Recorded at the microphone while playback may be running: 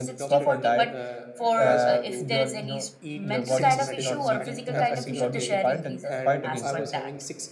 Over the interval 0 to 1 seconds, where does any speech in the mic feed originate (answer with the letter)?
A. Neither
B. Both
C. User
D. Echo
B